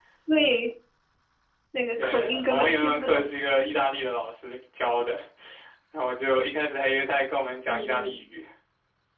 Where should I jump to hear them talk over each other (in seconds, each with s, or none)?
2.0 s